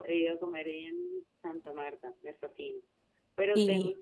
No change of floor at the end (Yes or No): Yes